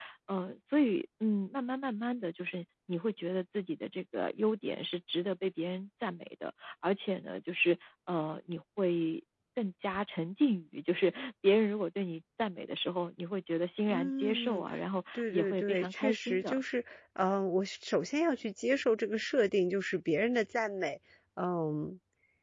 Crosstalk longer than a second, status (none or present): present